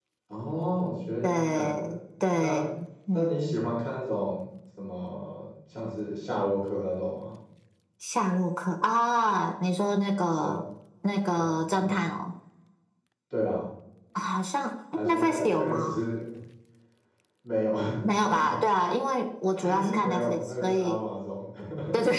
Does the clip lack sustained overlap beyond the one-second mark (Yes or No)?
No